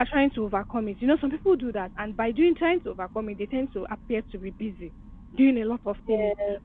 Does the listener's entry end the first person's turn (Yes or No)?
No